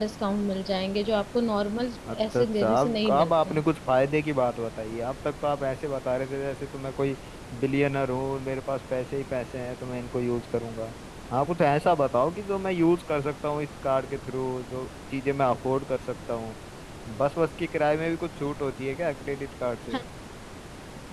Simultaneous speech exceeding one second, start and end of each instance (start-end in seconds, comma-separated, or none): 2.1-3.6